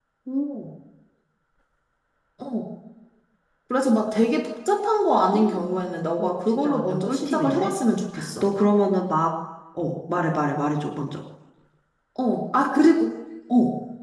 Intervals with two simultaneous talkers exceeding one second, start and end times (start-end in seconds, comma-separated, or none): 6.2-7.7